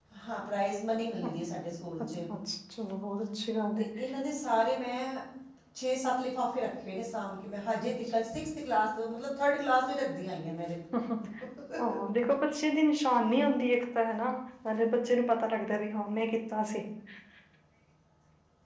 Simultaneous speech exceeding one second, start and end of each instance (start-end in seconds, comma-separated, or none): none